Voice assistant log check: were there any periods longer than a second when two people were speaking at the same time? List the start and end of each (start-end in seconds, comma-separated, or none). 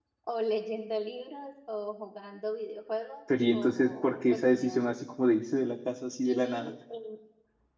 3.5-5.0